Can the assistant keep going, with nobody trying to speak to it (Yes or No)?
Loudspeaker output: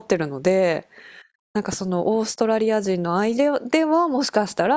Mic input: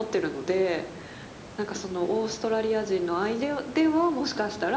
Yes